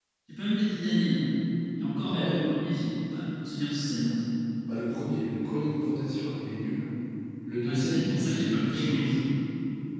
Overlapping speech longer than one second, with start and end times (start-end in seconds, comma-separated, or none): 7.6-9.0